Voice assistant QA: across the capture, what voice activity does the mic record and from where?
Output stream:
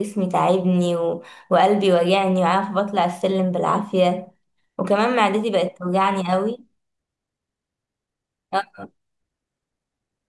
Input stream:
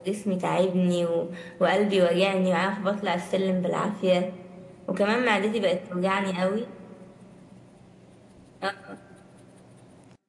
echo only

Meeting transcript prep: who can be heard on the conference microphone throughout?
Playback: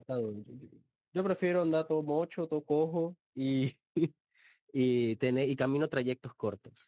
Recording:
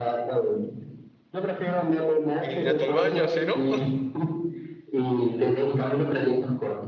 both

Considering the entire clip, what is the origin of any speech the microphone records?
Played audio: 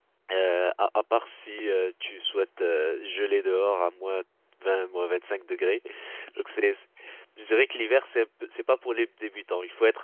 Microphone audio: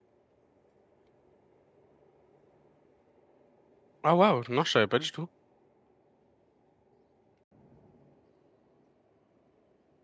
user only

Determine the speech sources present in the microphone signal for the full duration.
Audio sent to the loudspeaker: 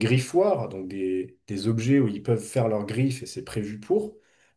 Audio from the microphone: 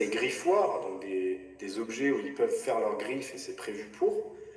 echo only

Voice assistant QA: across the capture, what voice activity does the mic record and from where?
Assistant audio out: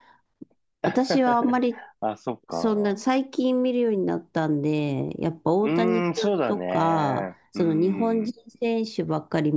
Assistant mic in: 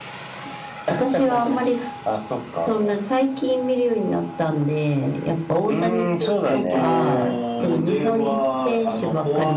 both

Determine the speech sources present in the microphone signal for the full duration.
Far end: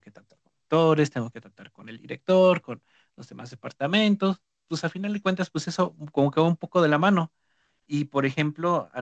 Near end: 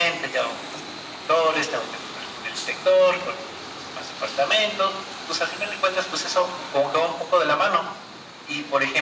echo only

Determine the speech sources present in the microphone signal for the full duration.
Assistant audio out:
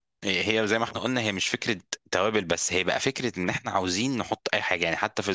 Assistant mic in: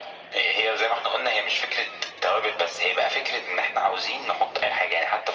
echo only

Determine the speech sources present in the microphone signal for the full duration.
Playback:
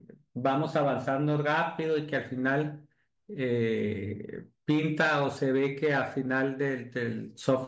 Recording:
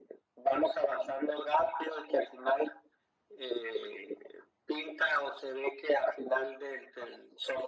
echo only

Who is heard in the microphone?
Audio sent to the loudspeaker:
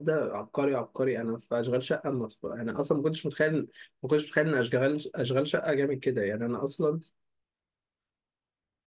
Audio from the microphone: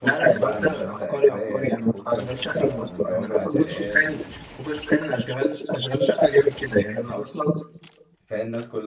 both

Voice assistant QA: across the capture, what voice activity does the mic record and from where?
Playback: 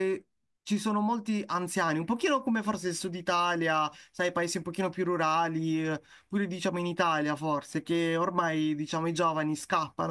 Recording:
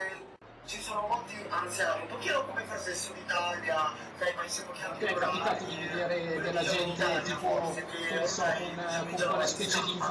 both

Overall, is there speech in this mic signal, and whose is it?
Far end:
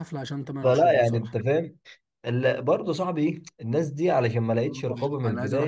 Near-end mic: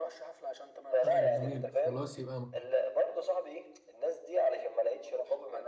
both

